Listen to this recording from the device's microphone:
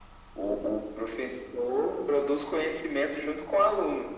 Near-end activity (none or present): none